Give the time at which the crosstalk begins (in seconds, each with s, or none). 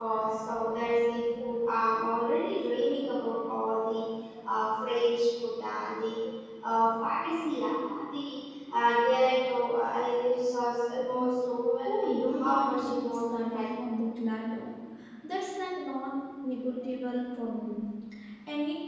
11.8 s